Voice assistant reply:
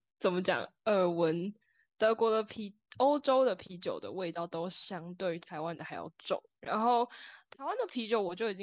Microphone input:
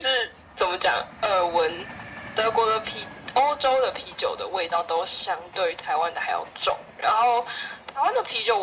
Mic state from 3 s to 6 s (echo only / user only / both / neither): echo only